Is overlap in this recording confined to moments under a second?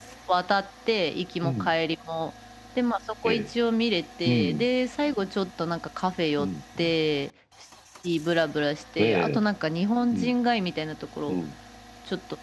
Yes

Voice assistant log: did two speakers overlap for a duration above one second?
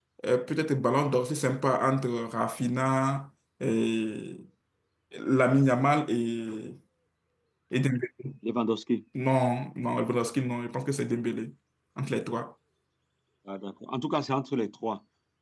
No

